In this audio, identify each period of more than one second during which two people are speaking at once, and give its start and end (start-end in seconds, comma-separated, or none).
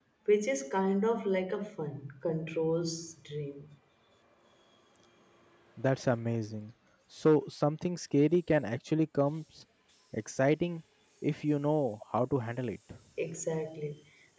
none